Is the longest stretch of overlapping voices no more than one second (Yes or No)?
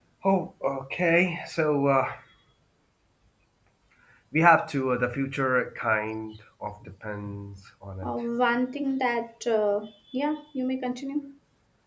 Yes